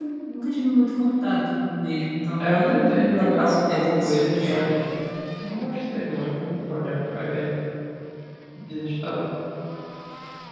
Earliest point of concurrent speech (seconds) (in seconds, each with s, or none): 2.4 s